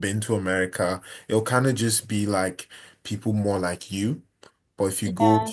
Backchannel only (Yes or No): Yes